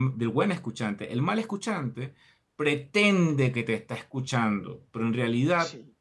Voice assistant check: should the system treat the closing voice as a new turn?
No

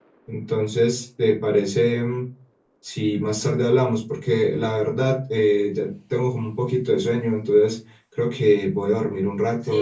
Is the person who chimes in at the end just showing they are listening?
No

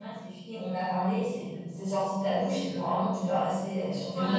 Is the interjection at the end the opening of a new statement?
Yes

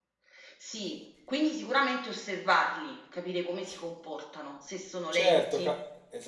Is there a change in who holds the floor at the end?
Yes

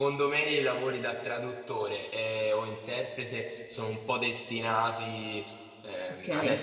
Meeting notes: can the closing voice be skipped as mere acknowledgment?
Yes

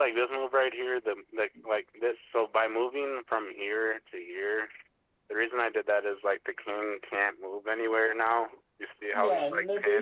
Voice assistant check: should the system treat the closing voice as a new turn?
Yes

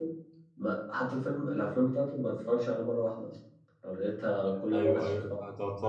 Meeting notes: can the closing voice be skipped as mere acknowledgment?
No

